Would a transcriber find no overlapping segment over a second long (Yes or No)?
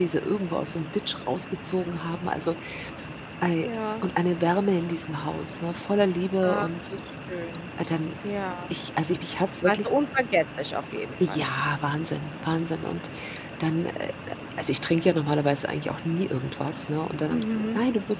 Yes